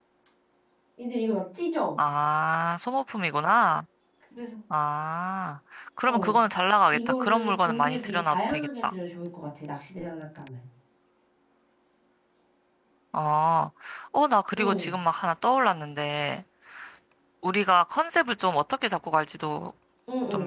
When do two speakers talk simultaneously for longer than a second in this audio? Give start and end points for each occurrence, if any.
6.9-8.9

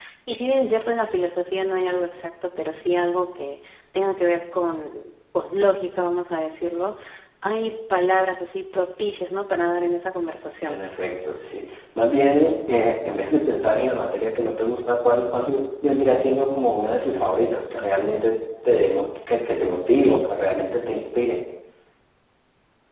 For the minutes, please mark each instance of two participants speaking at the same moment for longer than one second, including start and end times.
none

